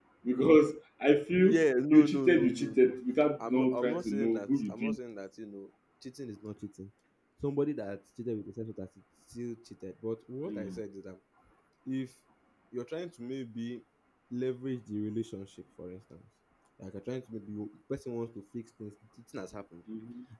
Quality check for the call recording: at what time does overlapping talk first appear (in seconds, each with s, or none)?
1.4 s